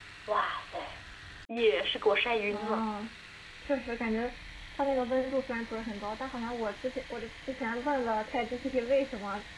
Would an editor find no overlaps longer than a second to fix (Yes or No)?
Yes